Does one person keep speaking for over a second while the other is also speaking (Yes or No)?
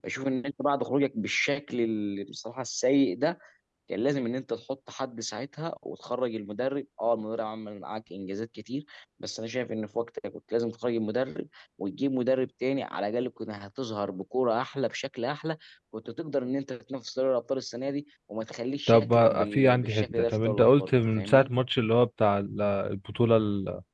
Yes